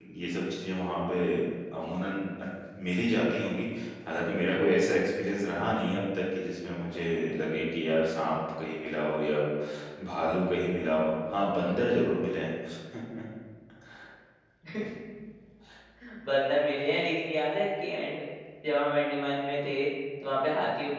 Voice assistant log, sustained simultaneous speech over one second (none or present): none